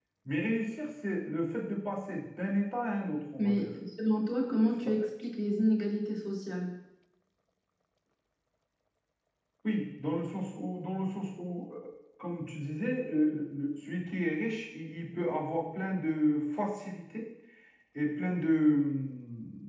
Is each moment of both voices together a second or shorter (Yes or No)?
Yes